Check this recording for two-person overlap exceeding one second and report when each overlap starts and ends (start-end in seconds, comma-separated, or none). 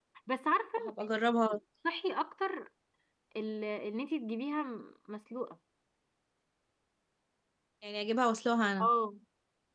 none